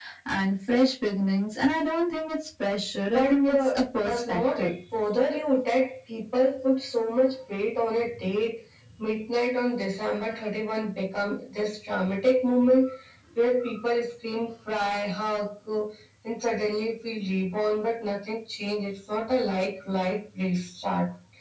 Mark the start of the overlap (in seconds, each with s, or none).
3.1 s